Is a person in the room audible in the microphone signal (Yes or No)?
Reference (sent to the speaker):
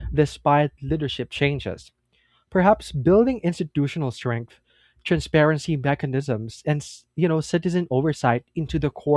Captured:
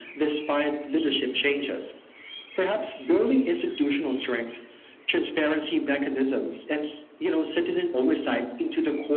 No